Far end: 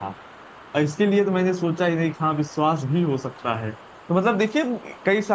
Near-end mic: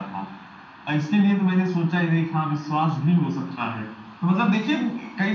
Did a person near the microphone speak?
No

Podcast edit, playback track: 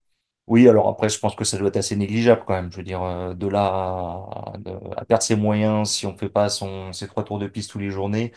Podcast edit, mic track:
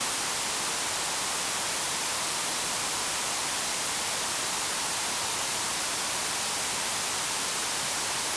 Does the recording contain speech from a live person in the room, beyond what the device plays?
No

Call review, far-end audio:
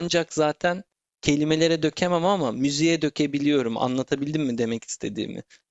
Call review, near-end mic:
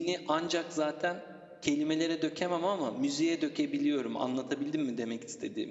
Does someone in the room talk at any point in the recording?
No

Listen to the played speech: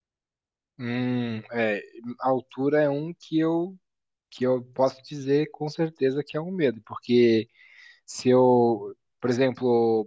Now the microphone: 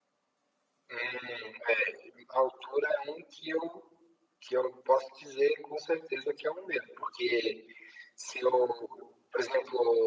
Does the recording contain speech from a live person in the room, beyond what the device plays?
No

